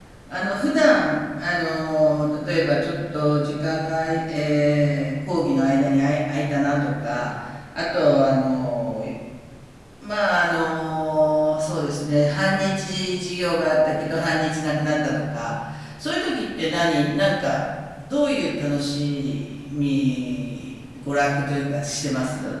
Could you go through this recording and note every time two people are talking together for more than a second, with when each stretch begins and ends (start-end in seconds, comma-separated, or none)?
none